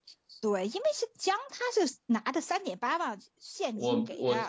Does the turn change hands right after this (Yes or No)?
Yes